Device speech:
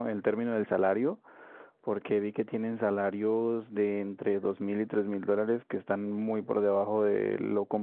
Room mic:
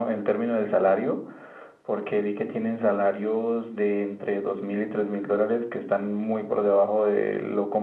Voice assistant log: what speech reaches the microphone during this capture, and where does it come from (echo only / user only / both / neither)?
echo only